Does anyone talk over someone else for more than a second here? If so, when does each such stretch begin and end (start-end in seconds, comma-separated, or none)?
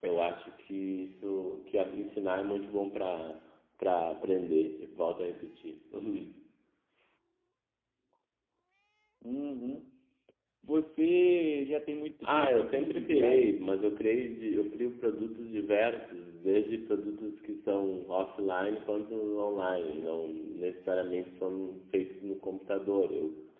12.2-13.6